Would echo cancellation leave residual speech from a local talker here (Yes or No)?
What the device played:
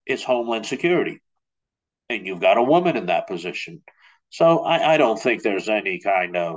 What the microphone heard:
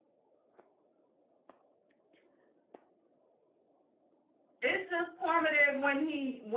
Yes